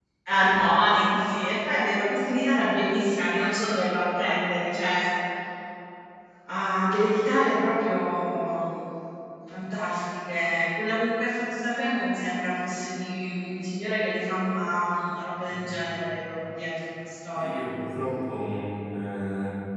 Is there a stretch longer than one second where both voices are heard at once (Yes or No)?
No